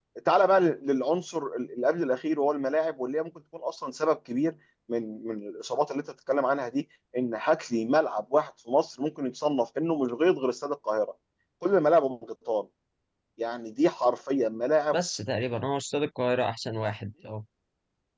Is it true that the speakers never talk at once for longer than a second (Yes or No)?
Yes